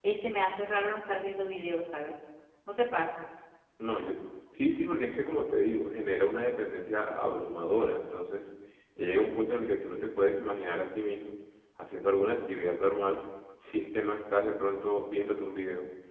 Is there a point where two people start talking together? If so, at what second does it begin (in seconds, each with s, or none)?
none